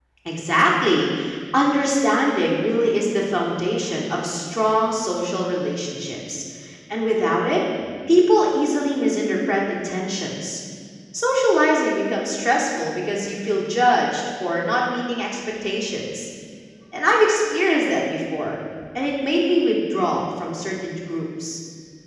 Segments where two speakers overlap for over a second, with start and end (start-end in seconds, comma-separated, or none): none